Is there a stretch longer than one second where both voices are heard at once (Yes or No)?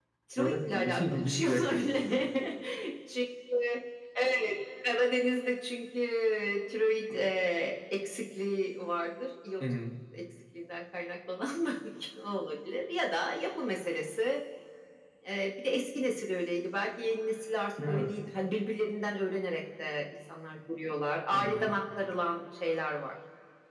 Yes